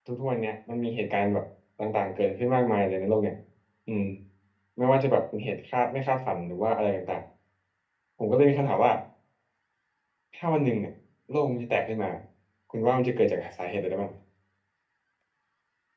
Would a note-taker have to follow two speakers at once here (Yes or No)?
No